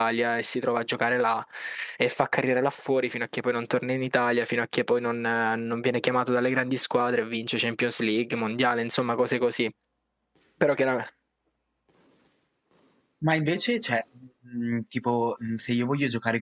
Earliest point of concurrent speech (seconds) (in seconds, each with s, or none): none